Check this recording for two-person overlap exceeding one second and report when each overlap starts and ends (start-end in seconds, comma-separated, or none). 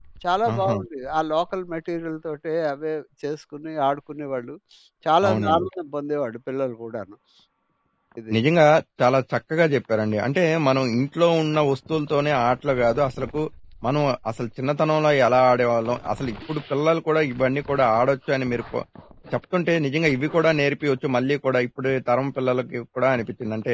none